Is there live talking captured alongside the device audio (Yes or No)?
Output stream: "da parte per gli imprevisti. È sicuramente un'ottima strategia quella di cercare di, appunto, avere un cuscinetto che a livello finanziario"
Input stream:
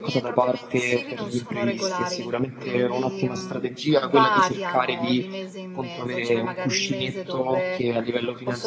Yes